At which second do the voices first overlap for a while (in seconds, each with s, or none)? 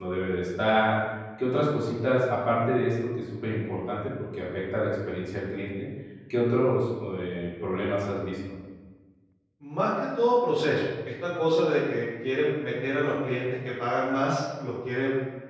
none